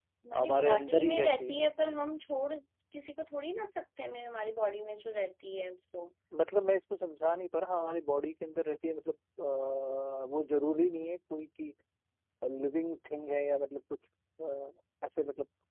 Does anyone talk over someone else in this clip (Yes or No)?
Yes